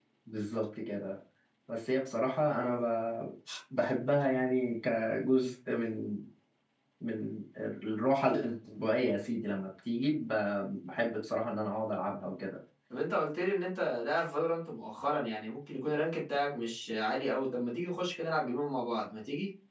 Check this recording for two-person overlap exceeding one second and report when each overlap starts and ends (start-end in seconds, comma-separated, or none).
none